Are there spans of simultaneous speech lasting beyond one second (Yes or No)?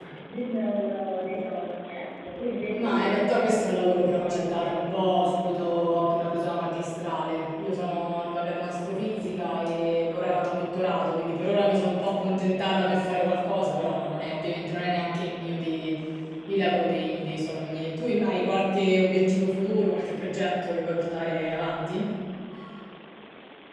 Yes